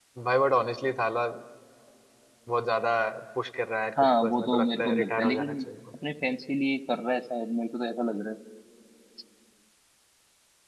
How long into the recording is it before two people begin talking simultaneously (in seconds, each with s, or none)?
4.2 s